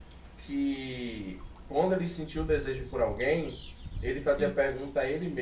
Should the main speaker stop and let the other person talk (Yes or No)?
No